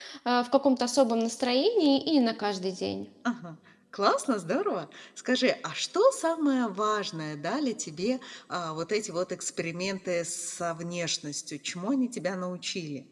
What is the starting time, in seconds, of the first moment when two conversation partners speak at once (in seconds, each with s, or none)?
none